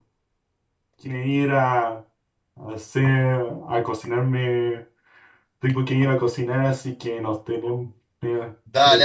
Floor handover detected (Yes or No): Yes